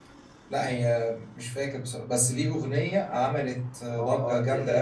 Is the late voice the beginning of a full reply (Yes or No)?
Yes